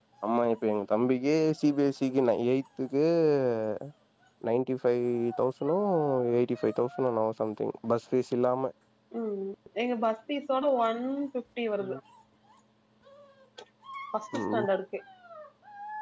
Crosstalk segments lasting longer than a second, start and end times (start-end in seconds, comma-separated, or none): none